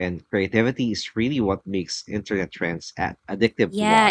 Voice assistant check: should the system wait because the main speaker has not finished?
No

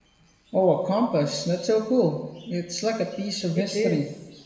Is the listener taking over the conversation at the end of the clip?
Yes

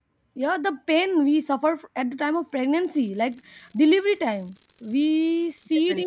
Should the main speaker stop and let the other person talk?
No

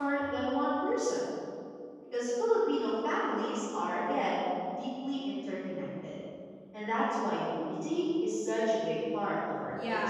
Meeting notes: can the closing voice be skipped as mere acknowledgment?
No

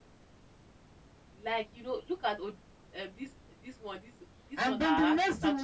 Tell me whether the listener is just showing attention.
No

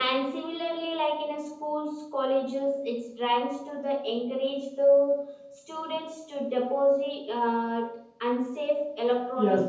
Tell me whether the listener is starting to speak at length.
Yes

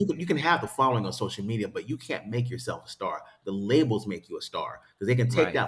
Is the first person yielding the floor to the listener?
No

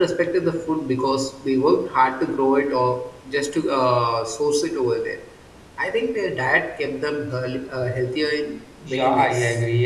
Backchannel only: No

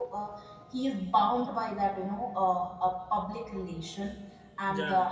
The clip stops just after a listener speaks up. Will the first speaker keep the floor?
Yes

